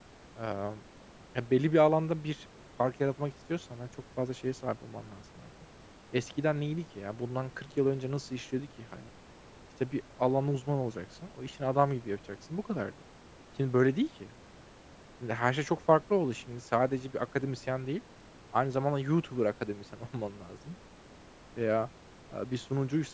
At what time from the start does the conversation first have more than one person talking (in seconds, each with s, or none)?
none